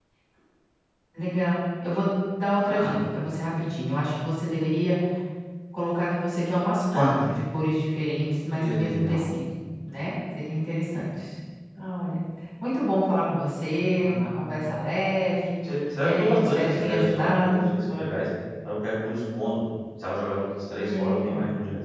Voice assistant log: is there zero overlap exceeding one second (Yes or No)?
No